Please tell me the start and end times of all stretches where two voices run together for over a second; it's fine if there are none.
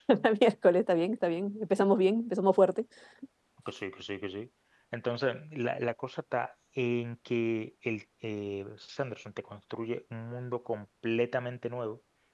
none

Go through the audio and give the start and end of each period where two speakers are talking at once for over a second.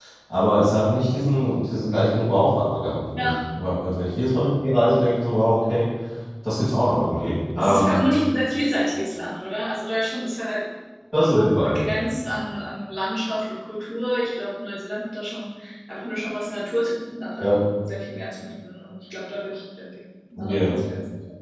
none

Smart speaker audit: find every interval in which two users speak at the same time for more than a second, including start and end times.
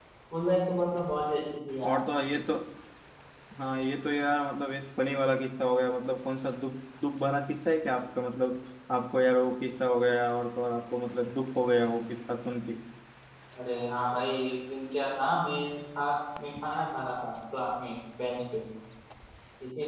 none

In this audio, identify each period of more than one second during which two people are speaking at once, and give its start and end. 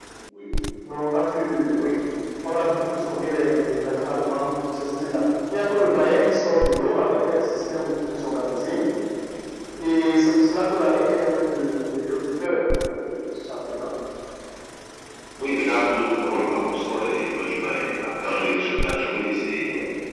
none

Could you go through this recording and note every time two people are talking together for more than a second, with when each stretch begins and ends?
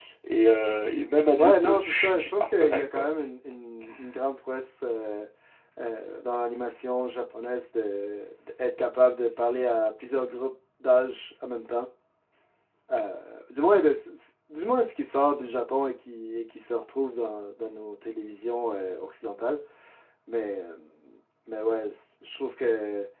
1.4-3.0

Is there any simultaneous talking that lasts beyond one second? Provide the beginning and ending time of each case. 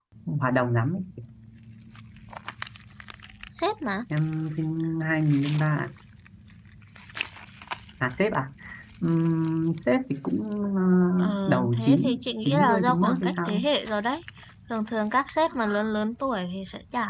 11.5-13.6

